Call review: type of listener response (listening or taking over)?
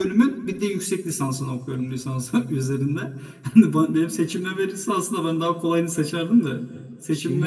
listening